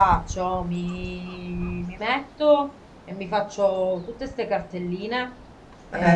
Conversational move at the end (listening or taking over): listening